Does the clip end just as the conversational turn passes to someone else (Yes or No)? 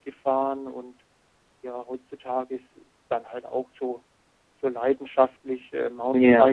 No